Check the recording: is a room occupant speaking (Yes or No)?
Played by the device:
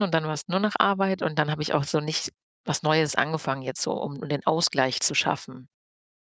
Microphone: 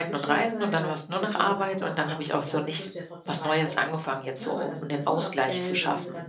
Yes